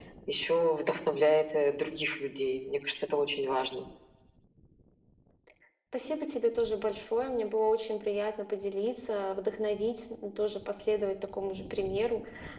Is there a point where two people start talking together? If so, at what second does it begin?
none

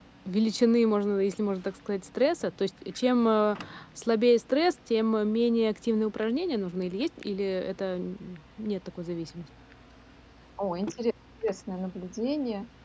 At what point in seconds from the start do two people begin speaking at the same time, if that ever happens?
none

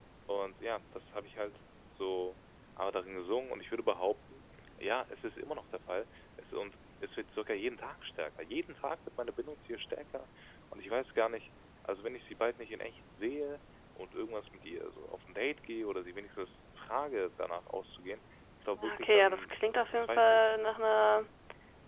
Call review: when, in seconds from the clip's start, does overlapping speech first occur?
19 s

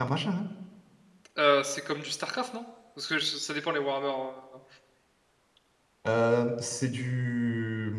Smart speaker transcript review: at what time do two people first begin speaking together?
none

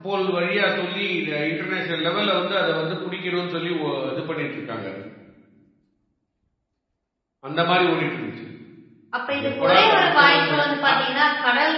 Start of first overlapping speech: 9 s

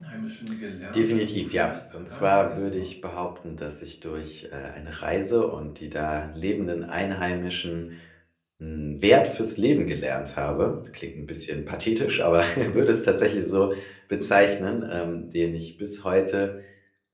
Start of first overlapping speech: 1 s

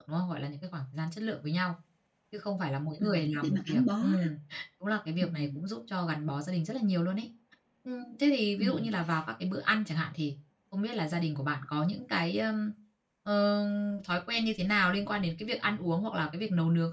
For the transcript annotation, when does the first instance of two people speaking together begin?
3 s

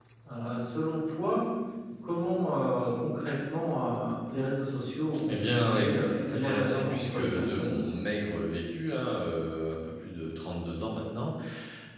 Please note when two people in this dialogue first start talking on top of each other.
5 s

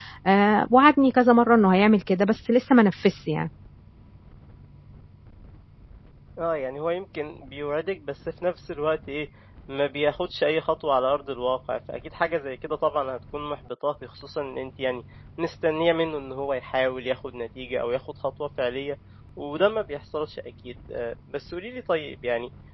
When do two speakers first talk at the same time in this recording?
none

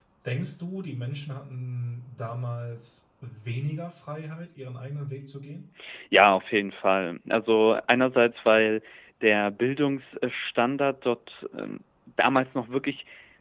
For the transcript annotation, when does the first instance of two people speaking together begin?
none

